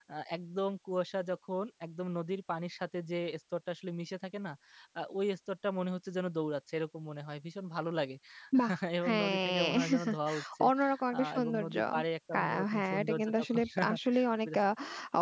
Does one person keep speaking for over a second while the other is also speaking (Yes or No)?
Yes